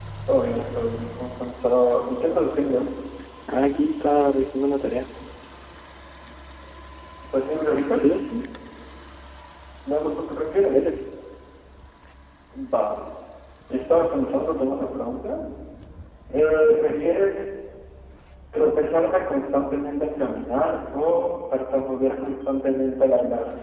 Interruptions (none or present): none